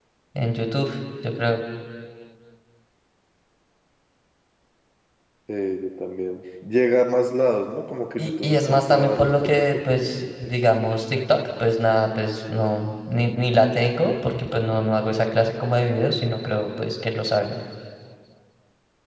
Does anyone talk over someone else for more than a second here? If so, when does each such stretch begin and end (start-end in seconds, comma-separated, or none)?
8.2-10.6